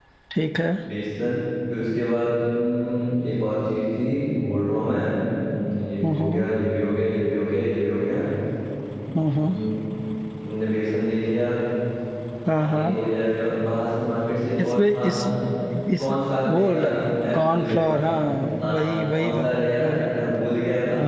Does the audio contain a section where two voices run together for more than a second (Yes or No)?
Yes